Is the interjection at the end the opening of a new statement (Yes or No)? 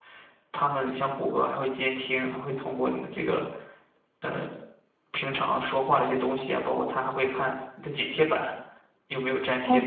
Yes